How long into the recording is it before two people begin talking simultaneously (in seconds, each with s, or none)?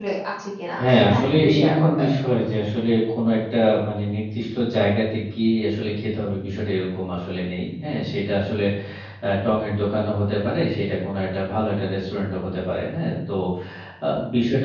0.8 s